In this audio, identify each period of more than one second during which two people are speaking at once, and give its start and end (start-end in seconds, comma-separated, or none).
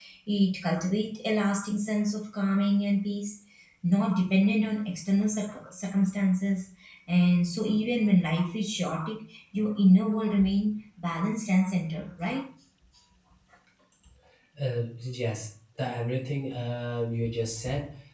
none